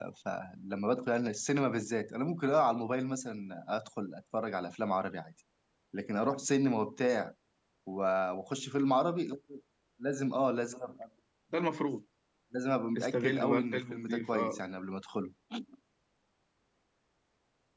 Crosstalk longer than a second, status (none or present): present